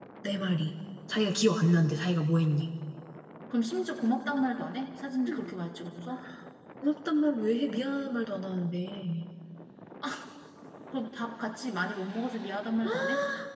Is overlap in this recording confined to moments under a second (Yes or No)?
Yes